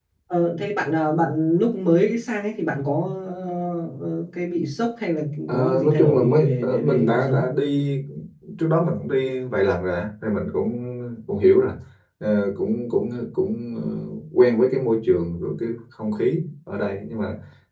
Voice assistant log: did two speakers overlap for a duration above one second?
Yes, from 5.5 s

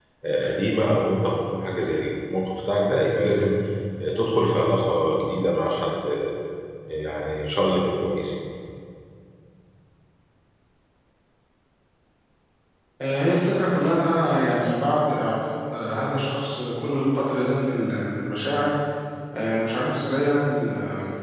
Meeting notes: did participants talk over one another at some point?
No

